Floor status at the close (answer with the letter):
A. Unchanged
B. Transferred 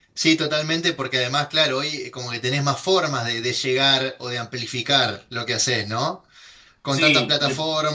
A